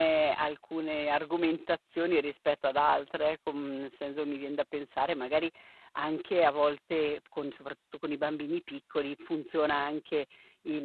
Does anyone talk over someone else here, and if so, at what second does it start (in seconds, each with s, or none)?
none